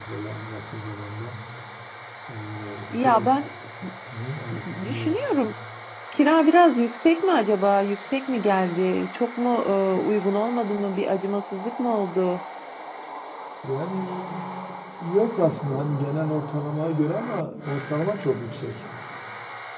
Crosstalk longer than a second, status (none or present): none